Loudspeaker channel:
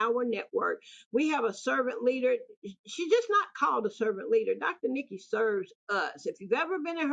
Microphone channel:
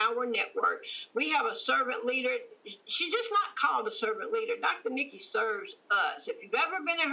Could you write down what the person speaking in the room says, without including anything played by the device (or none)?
none